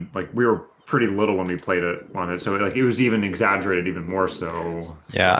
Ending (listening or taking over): taking over